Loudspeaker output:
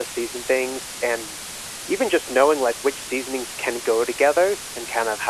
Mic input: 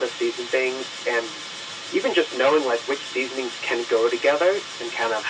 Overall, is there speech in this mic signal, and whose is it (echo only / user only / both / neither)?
echo only